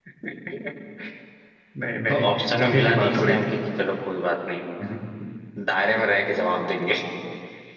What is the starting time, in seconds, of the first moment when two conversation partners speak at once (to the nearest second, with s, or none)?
2 s